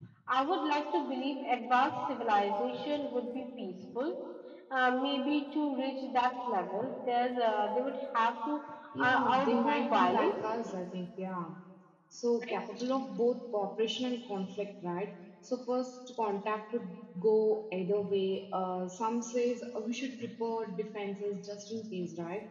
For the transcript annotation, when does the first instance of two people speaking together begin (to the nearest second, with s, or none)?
9 s